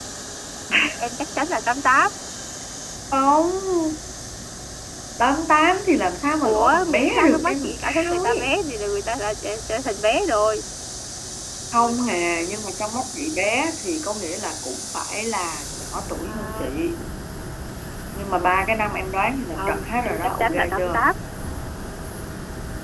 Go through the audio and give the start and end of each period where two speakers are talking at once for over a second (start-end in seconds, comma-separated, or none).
6.4-8.5, 19.6-21.1